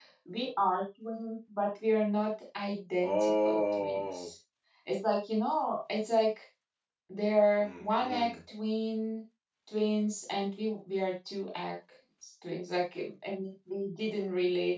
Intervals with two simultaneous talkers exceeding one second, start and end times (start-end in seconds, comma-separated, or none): 3.0-4.3